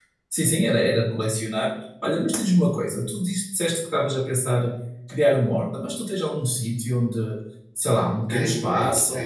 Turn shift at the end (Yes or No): Yes